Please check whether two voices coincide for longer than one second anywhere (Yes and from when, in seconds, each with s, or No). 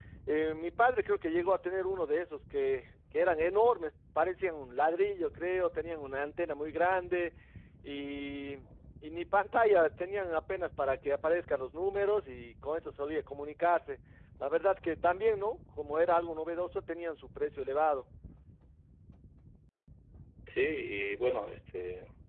No